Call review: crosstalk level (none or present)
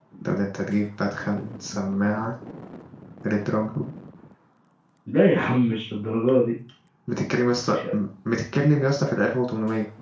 none